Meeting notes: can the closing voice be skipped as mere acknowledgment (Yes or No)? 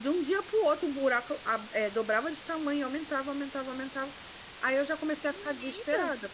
Yes